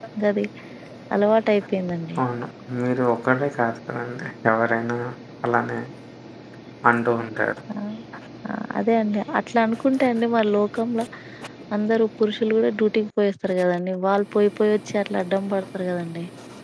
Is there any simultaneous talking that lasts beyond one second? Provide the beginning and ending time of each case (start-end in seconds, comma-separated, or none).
none